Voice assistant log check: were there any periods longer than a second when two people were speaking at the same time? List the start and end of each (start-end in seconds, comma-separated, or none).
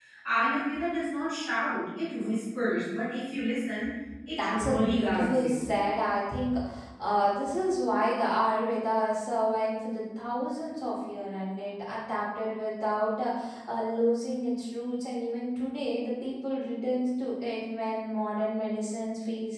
4.3-5.6